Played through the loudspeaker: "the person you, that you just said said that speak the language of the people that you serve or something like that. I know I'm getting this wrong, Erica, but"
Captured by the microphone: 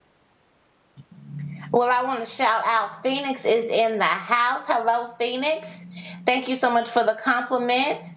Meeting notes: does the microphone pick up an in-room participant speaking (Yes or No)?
Yes